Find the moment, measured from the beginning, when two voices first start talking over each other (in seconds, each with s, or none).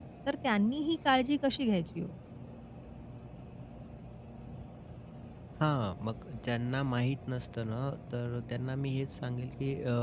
none